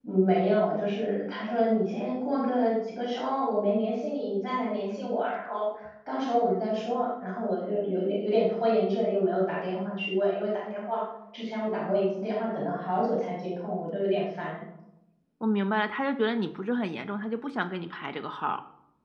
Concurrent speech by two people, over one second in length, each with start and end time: none

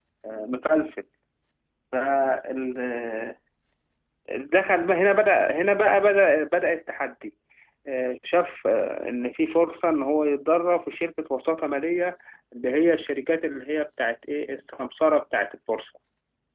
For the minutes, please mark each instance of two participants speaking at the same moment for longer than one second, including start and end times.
none

